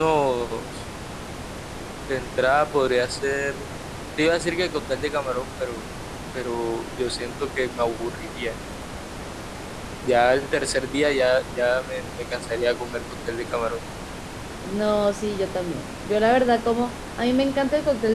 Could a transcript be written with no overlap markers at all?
Yes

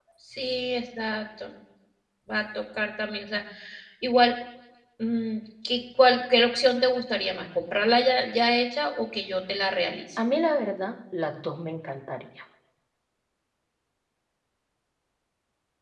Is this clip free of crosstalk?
Yes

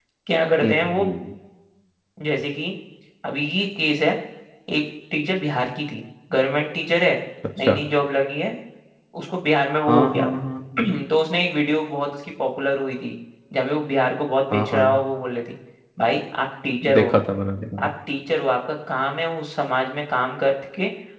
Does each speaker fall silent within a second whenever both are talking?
Yes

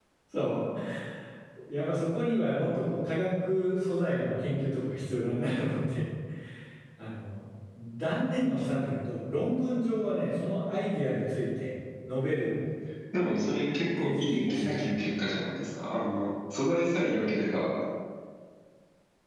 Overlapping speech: Yes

